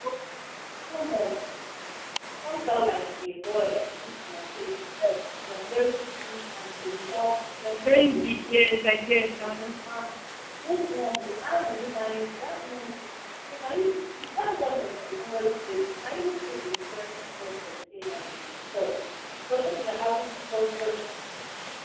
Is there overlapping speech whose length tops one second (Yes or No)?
No